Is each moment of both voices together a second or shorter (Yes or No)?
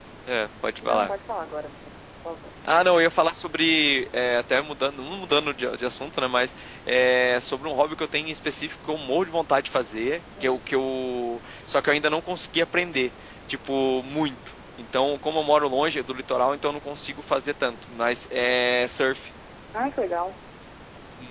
Yes